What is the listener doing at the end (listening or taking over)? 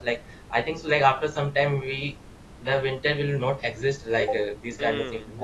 taking over